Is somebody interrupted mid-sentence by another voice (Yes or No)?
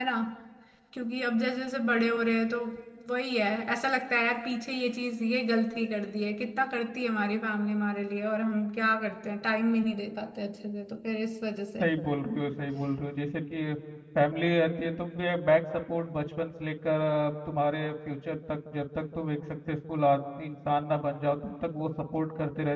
No